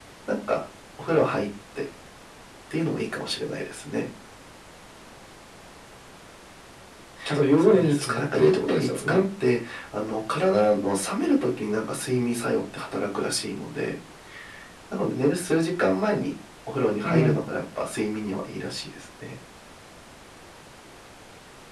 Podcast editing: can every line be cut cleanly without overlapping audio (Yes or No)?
No